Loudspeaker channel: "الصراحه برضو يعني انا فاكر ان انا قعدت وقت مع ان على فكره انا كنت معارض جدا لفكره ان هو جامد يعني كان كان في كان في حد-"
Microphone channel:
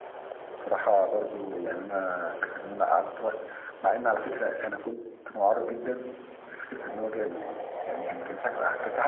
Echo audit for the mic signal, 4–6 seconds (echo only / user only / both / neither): echo only